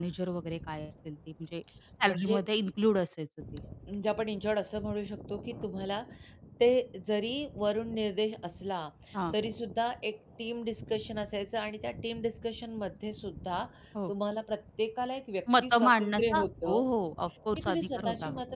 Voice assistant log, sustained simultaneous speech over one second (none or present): present